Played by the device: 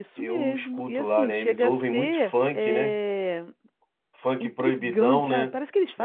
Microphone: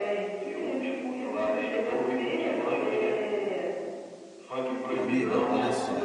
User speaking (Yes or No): Yes